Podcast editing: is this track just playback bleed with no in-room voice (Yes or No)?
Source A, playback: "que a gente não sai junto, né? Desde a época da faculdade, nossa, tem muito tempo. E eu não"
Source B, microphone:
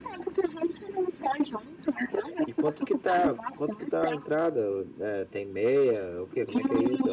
No